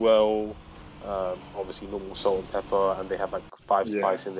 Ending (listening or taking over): listening